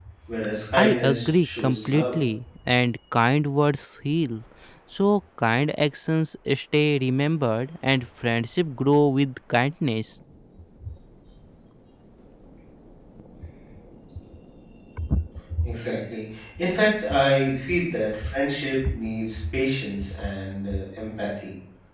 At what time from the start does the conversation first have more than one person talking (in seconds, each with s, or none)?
0.8 s